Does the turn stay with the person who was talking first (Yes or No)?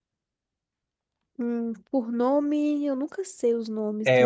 No